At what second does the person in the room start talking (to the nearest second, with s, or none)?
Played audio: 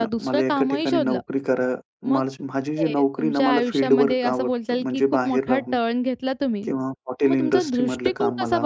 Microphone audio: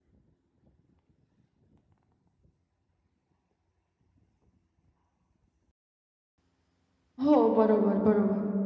7 s